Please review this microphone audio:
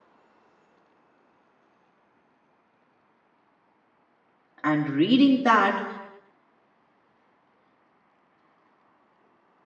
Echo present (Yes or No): No